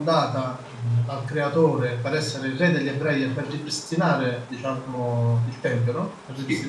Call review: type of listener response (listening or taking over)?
listening